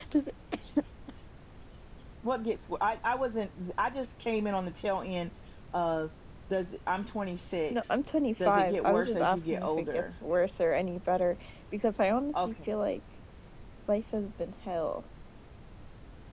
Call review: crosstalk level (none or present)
present